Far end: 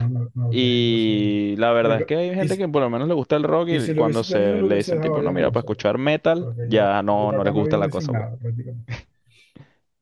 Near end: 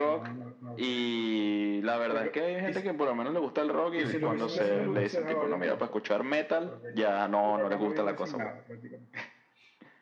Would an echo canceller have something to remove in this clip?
Yes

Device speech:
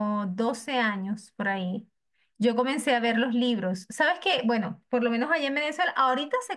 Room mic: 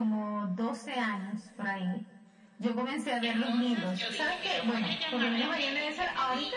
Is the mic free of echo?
No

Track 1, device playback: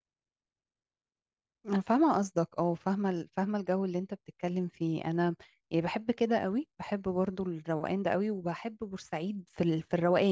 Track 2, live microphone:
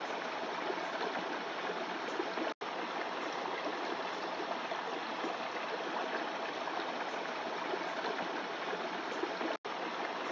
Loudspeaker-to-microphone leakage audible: No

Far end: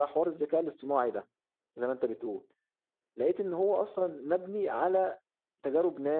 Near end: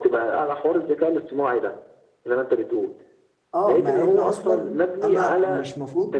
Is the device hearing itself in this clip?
Yes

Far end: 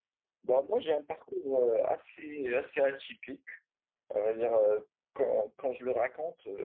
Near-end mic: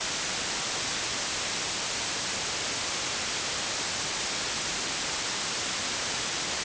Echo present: No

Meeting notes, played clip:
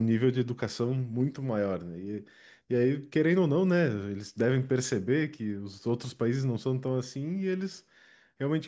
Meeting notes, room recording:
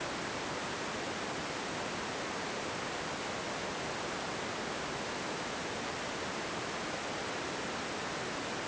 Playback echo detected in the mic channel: No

